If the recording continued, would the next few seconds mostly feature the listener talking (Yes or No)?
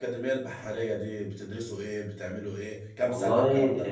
Yes